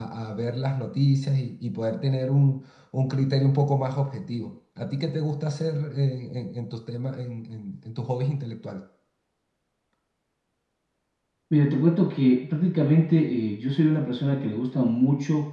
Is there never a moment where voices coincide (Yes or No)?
Yes